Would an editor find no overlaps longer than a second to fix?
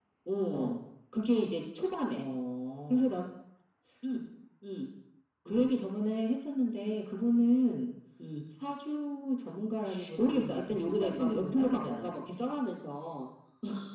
No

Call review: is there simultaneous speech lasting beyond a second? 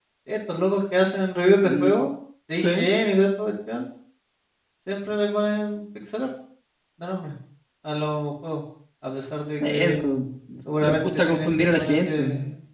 Yes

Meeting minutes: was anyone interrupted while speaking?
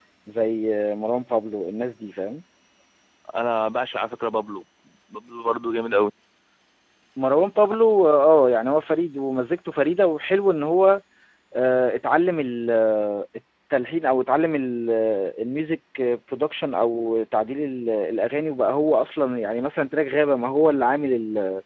No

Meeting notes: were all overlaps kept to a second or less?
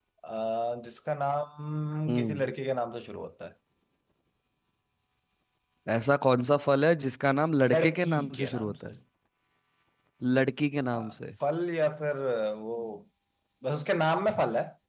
No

